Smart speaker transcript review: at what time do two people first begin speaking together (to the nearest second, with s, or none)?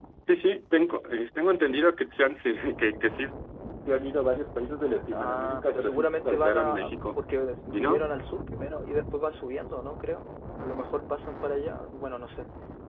5 s